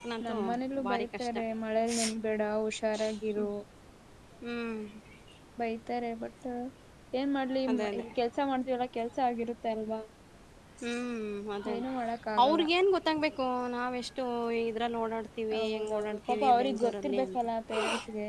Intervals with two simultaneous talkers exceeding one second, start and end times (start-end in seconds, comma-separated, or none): 15.6-17.4